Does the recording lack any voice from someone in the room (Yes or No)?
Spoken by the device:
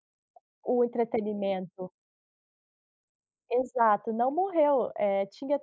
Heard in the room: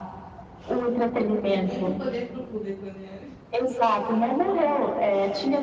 No